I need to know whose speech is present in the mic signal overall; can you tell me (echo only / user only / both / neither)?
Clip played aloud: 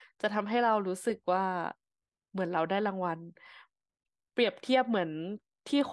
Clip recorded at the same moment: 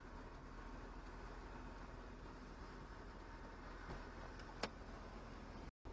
neither